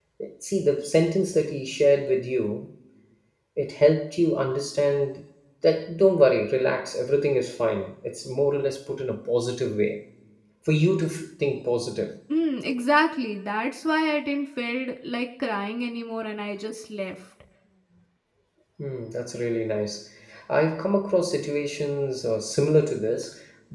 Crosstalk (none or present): none